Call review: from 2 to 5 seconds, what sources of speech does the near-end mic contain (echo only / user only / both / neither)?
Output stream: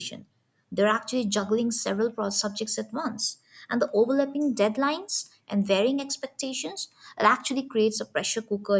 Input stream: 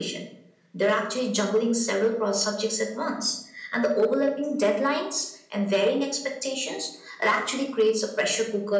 echo only